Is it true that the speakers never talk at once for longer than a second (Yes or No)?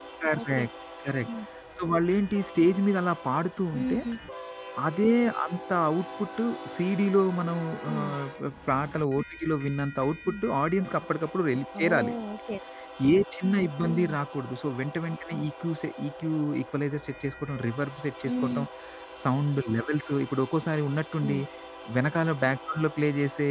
Yes